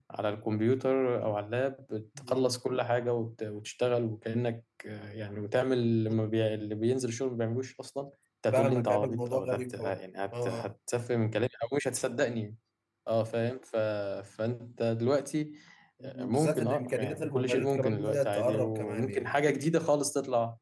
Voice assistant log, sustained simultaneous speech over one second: present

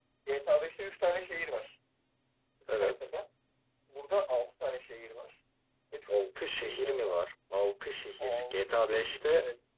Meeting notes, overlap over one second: present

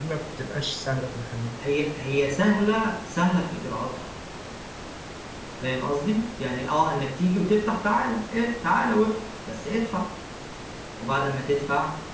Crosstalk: none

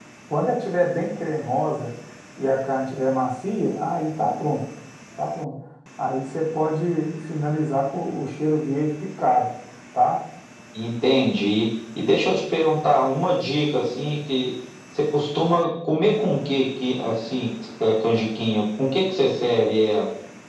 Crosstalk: none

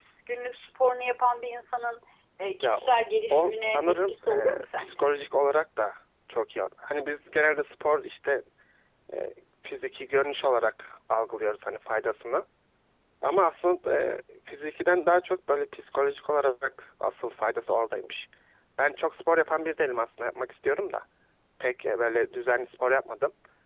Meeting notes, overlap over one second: present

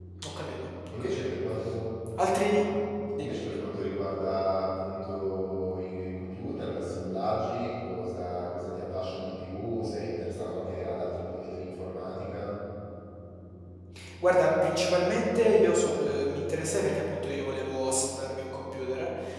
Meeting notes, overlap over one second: none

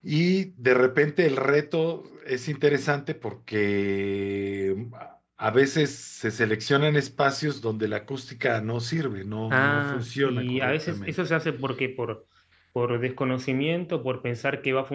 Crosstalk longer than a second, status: present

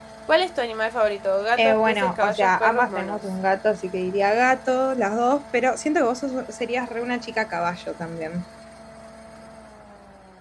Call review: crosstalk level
present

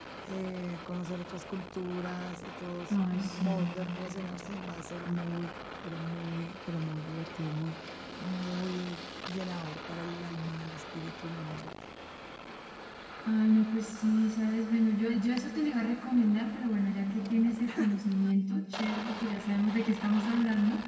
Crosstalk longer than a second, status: none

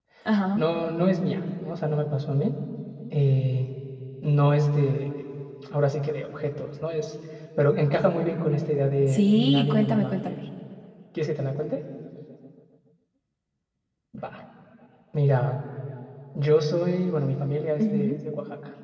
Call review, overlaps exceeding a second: present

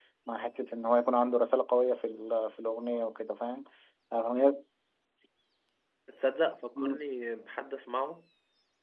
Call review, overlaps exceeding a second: none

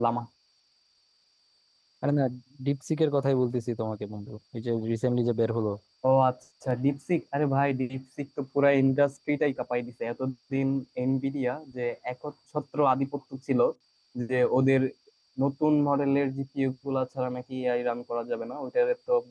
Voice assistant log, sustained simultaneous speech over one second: none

